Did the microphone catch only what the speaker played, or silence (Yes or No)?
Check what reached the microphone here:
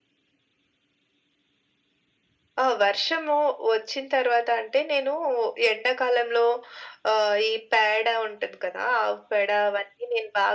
Yes